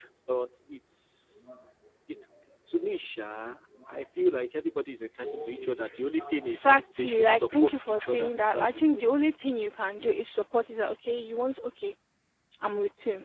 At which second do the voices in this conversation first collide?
6.5 s

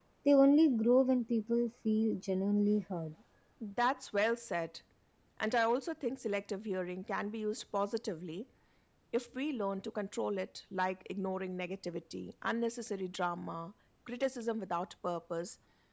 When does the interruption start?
none

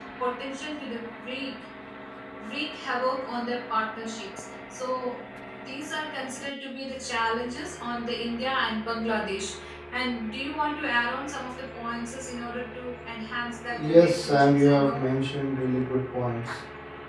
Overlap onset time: 13.7 s

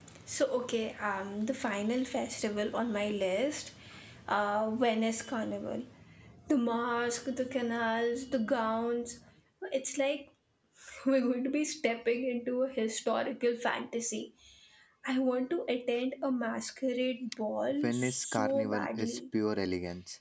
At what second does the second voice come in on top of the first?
17.8 s

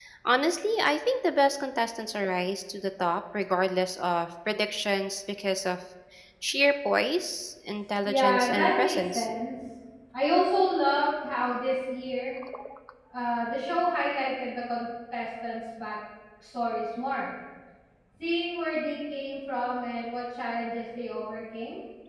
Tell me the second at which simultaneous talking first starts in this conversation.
8.1 s

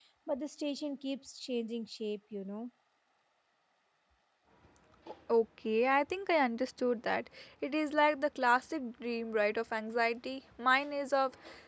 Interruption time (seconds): none

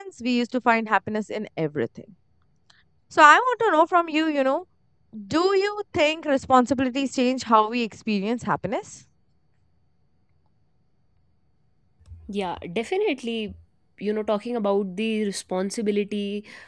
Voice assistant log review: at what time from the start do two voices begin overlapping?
none

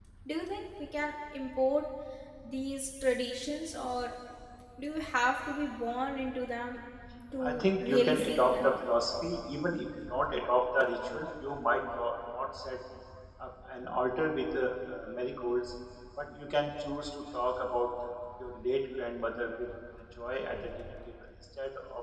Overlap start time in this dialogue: 7.4 s

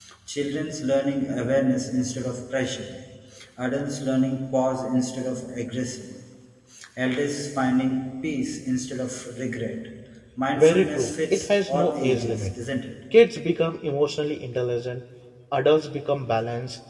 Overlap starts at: 10.6 s

